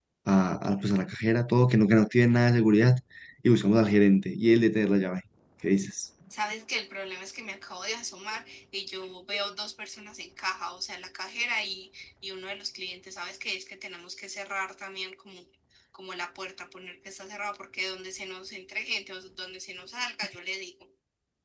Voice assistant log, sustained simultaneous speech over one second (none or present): none